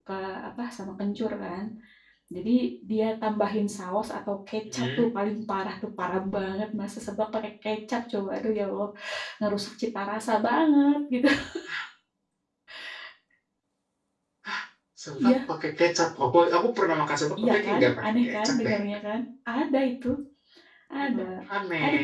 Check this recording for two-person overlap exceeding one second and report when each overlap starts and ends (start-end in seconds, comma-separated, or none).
17.4-18.8